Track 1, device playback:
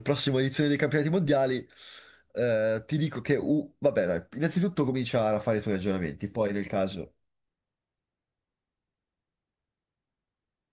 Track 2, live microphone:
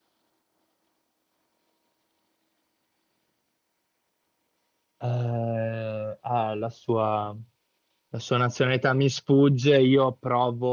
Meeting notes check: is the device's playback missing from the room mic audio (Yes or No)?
Yes